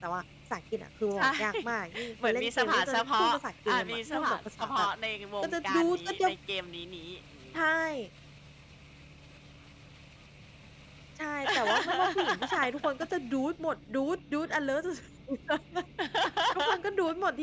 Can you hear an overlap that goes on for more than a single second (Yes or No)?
Yes